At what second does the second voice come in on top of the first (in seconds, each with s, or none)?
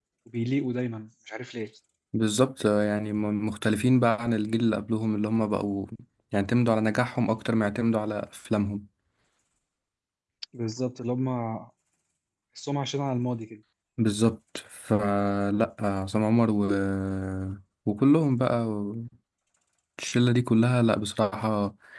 none